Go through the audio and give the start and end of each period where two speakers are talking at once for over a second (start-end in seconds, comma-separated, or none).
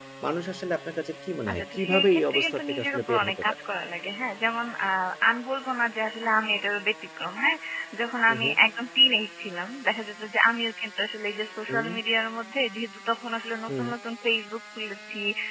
1.5-3.6